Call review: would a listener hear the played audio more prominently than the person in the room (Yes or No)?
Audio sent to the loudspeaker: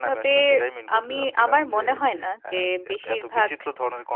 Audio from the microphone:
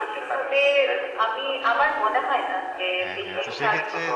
Yes